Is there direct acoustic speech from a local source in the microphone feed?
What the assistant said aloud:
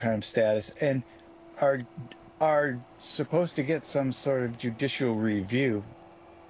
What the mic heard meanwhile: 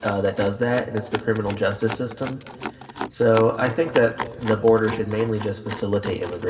Yes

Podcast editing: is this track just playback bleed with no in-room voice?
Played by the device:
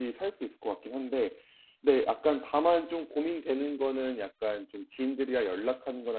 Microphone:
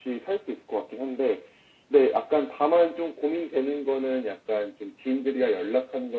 Yes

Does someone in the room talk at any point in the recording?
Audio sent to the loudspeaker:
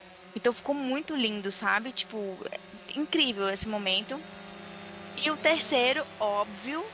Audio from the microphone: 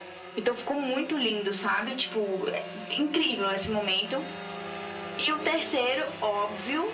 No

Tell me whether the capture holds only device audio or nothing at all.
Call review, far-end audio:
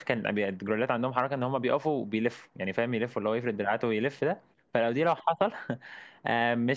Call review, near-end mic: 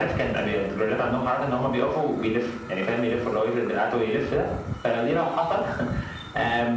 Yes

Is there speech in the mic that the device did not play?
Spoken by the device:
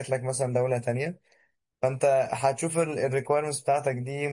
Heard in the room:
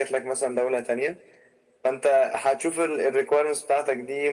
No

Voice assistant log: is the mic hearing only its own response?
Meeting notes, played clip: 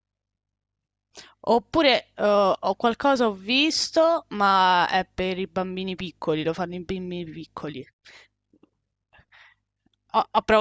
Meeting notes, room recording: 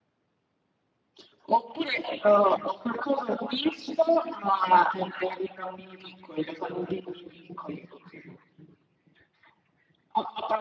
Yes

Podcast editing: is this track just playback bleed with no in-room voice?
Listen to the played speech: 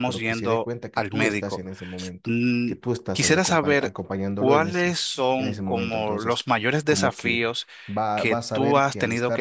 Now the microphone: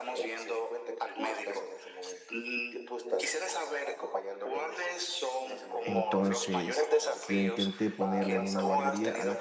No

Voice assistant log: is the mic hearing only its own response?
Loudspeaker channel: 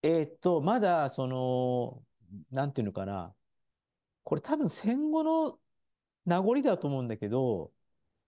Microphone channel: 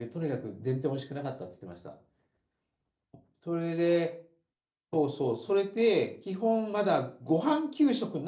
No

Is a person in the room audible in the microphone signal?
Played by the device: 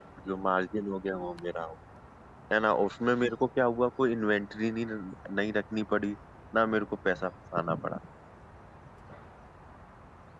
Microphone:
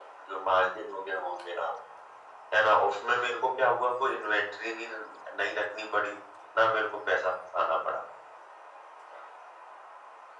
No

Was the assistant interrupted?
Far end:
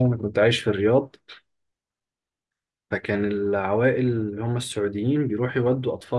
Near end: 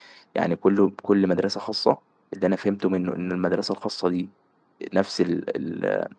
Yes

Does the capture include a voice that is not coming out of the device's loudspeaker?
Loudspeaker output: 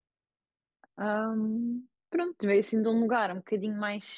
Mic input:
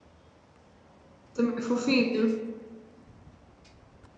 Yes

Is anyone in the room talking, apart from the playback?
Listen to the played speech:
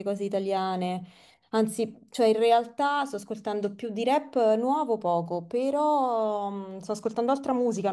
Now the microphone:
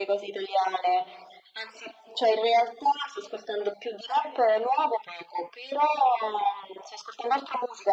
No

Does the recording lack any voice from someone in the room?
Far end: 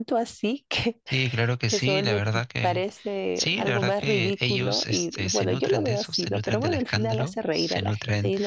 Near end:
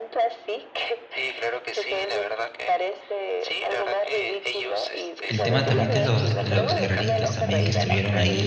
No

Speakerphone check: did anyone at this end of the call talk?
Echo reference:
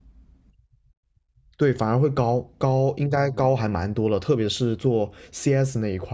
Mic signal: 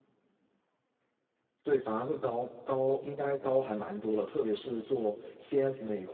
No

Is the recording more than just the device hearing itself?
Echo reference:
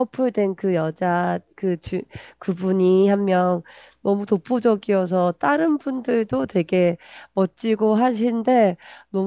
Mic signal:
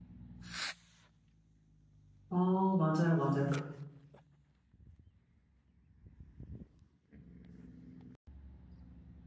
Yes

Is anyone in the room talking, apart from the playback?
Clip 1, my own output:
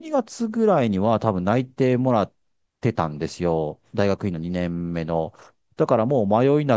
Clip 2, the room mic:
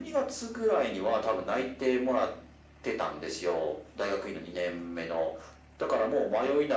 No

